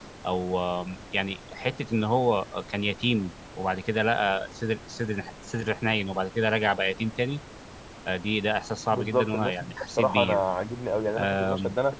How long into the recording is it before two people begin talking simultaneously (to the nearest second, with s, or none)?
9 s